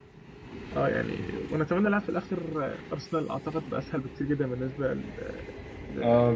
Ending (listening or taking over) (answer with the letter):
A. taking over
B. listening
A